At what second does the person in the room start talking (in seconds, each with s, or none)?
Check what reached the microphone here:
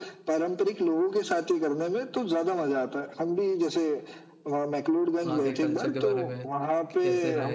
5.2 s